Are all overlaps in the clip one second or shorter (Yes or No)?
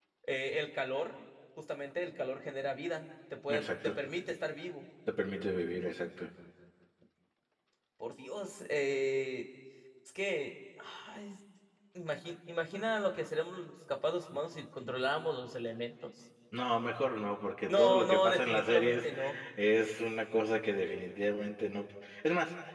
No